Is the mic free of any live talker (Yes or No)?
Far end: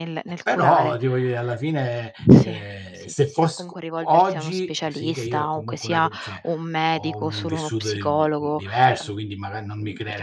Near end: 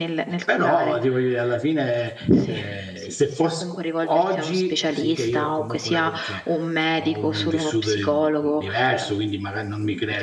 Yes